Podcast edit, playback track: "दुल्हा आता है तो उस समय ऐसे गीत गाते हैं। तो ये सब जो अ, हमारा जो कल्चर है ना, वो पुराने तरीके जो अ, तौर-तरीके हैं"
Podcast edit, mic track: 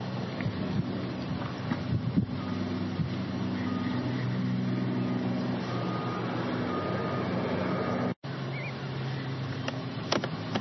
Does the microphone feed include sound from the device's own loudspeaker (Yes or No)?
No